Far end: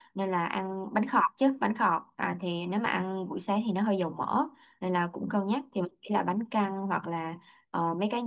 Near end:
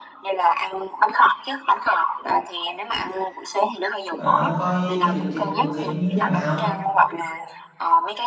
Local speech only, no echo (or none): ờ, coi cái lịch trình cụ thể như thế nào